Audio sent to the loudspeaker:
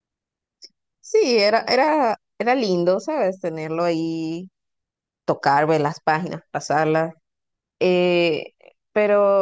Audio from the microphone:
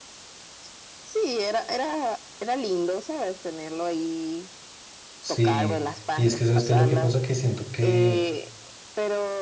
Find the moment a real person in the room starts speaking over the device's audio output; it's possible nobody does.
5 s

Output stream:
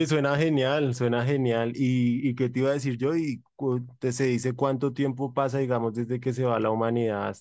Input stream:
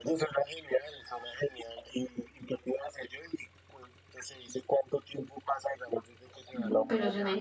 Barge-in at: 7 s

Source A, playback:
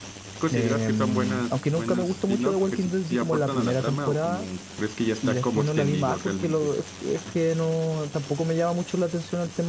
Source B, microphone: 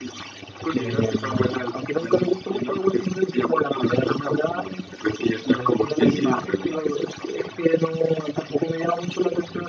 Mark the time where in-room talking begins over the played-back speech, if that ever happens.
6 s

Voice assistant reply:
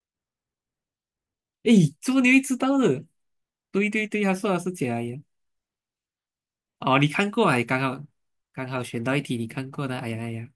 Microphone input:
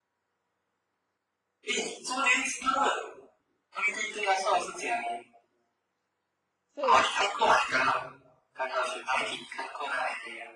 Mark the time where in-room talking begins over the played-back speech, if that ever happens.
7 s

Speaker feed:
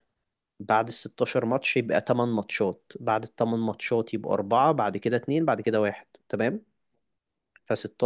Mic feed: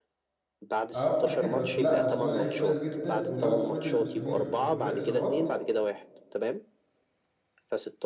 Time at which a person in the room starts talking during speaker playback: 1 s

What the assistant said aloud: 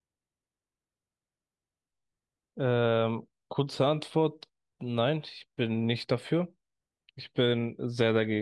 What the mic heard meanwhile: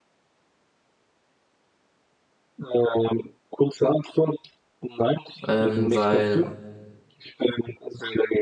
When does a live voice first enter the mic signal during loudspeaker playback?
5 s

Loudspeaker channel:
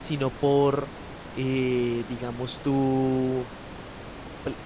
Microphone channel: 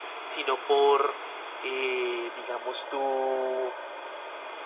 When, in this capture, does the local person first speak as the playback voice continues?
none

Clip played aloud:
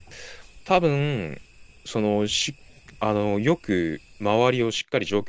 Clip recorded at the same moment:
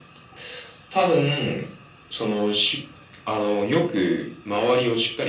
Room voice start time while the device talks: none

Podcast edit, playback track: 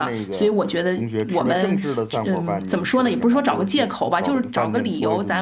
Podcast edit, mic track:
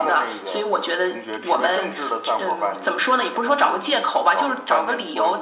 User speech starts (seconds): none

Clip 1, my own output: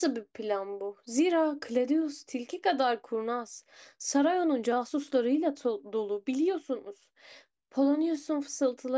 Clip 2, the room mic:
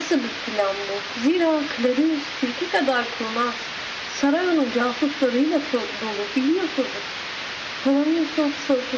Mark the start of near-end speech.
none

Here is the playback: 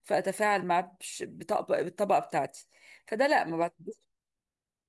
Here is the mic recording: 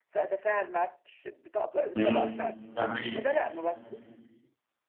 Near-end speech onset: 2 s

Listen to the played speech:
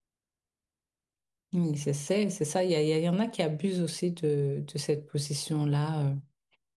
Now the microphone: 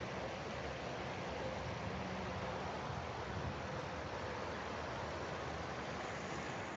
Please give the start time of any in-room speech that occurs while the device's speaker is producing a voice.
none

